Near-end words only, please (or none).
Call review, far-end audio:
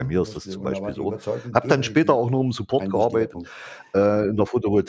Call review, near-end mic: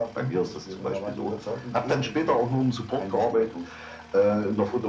none